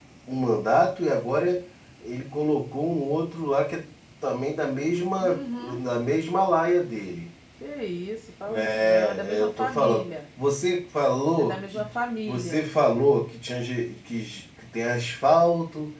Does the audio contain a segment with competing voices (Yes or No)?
Yes